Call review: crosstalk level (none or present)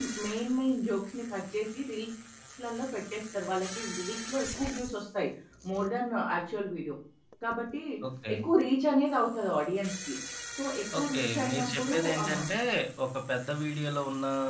present